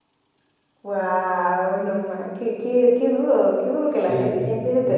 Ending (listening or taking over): taking over